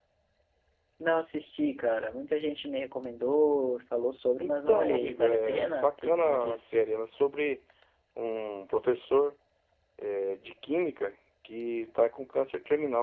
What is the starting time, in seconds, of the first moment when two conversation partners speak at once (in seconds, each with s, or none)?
4.4 s